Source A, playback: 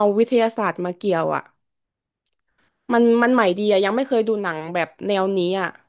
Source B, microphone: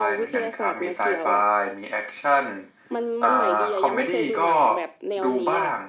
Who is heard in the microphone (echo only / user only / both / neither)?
both